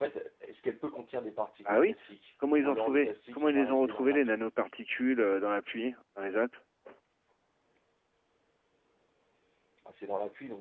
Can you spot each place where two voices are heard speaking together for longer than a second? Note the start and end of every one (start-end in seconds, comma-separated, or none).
2.6-4.3